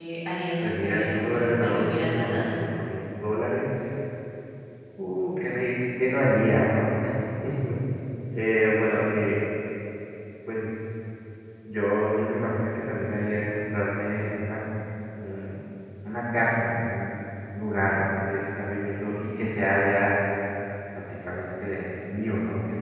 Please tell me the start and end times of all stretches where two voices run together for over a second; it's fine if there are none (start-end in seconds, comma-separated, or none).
0.7-2.5